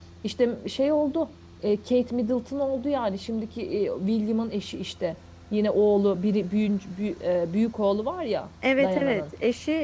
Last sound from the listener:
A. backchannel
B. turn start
B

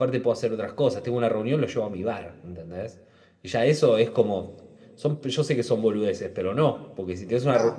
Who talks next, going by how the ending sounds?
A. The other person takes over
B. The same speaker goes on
B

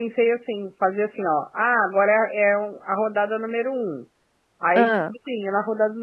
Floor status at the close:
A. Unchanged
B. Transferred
A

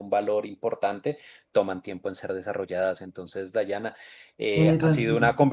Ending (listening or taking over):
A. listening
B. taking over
A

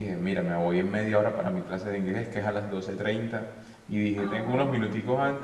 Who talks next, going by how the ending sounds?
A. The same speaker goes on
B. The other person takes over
A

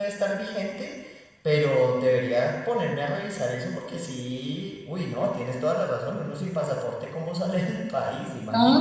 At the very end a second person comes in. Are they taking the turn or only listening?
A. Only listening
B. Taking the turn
B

